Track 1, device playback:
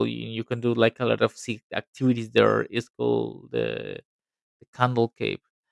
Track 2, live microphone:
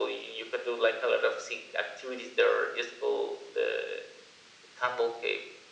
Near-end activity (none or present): none